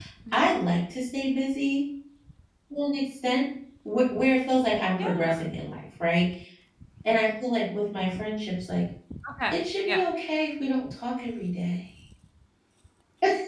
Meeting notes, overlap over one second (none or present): none